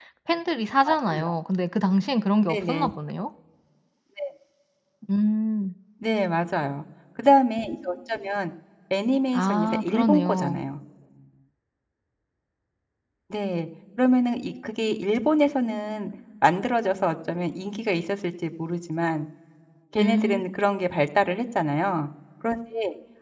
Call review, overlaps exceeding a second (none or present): present